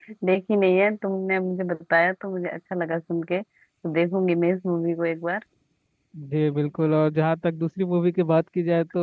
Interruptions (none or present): none